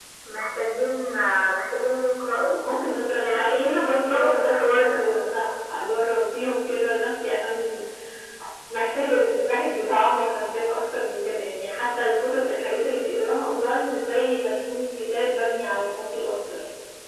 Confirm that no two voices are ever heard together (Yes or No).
No